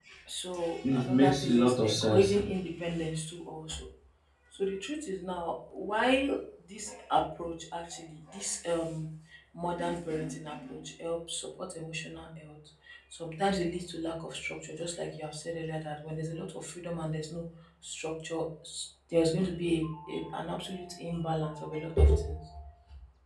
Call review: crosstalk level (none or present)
present